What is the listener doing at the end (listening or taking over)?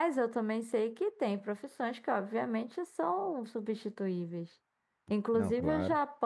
listening